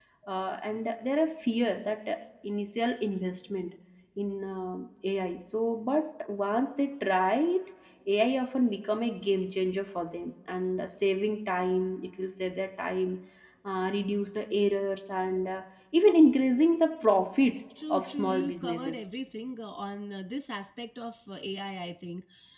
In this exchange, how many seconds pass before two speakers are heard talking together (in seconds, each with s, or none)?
17.7 s